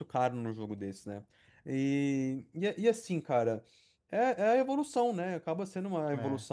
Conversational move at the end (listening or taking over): listening